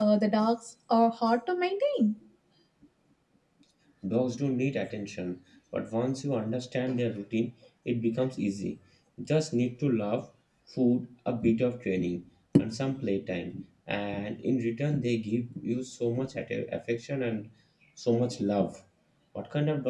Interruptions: none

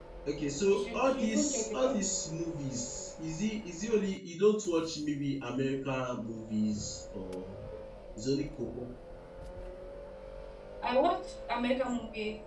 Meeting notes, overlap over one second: present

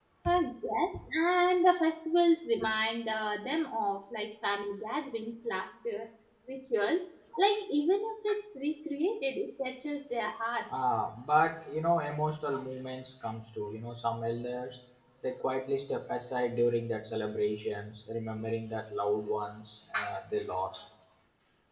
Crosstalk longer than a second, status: none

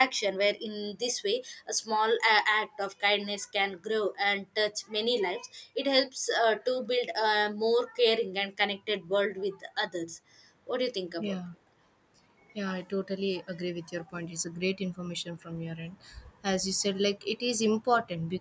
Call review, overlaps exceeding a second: none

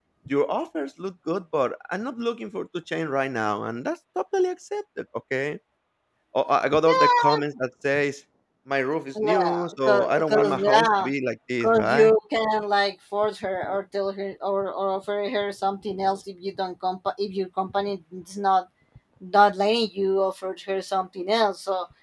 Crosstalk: present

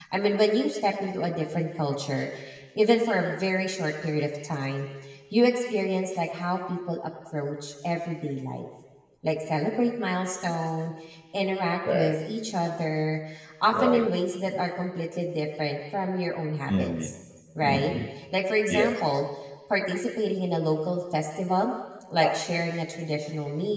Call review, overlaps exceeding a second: none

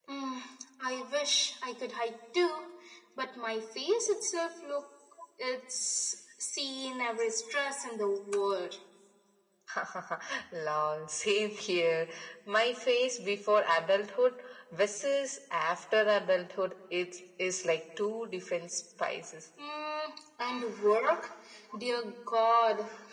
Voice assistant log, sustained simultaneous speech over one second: none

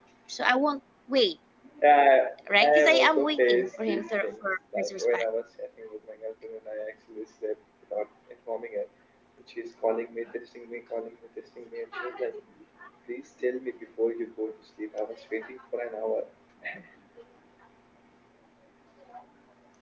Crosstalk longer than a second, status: present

